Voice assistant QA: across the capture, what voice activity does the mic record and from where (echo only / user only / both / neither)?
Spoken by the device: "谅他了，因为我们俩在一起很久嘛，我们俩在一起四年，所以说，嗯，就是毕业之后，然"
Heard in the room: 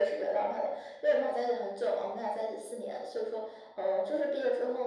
echo only